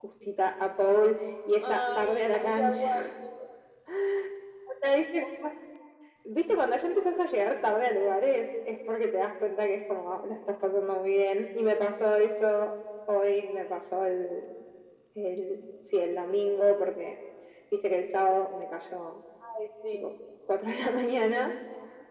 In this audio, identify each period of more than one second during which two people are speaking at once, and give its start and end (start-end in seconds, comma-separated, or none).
1.6-2.9